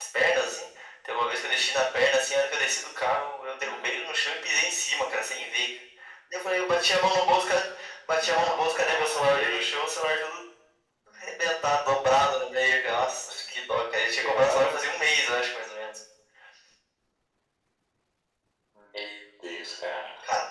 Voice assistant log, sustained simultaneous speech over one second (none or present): present